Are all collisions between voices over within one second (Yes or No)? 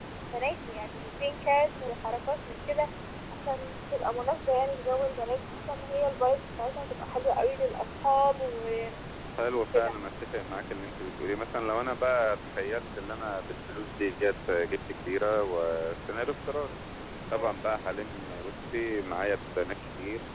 Yes